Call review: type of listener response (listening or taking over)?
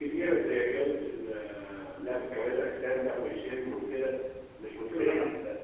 listening